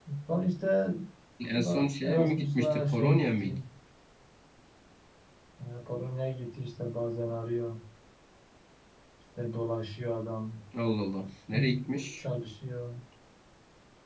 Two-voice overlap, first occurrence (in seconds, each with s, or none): 1.5 s